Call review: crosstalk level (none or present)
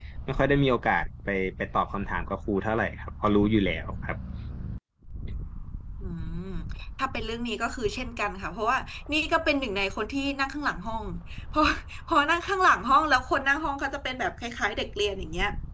none